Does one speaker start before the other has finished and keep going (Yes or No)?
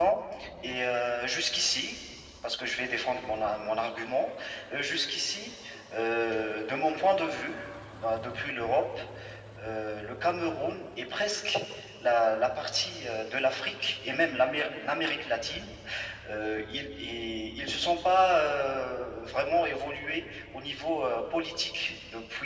No